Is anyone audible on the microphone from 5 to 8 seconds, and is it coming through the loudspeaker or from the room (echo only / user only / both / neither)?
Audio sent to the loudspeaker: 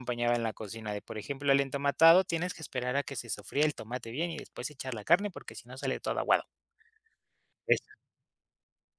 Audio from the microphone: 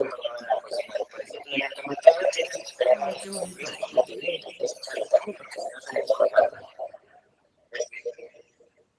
echo only